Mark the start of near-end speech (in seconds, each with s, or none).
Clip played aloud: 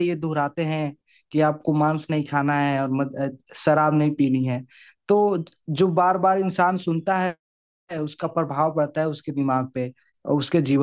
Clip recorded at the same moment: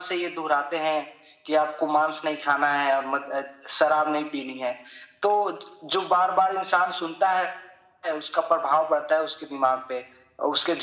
none